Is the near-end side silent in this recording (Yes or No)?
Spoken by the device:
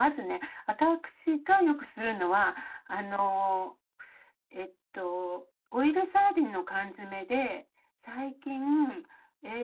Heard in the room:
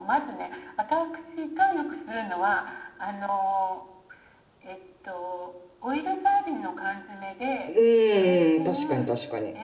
No